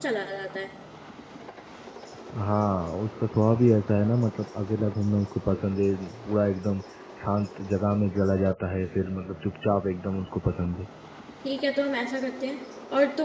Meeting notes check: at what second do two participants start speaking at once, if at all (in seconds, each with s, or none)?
none